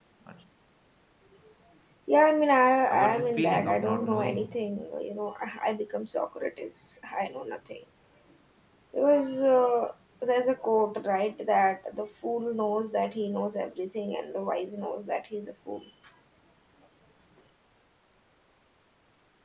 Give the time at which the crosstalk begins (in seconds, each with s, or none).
2.9 s